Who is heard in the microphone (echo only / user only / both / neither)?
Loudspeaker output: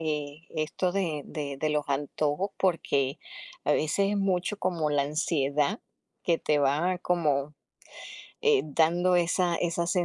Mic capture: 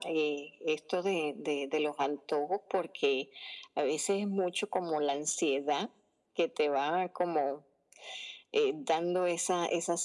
echo only